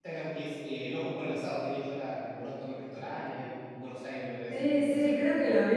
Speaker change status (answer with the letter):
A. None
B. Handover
B